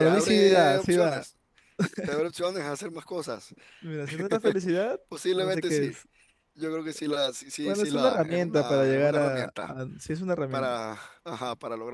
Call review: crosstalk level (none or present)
present